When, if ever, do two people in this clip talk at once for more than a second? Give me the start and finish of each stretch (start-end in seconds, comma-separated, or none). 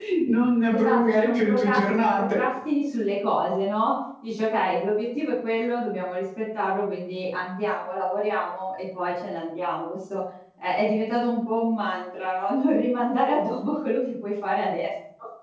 0.7-2.4